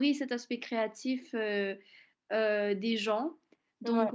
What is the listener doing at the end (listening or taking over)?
listening